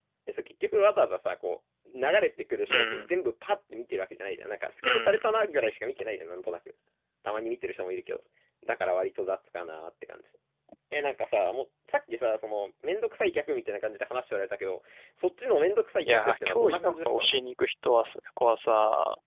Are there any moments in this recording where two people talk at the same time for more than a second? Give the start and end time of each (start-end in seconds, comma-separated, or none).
16.1-17.4